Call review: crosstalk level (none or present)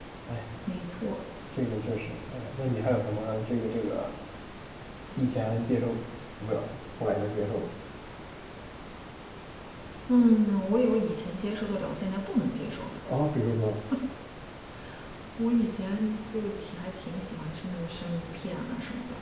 none